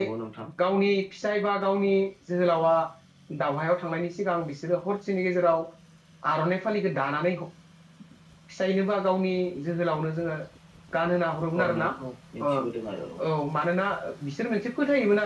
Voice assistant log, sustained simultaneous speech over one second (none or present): none